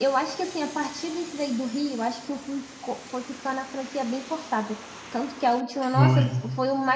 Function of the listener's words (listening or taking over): listening